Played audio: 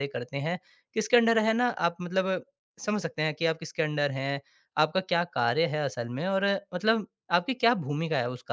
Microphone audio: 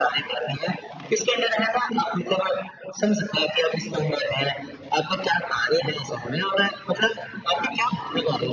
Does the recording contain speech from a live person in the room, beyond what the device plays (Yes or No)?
No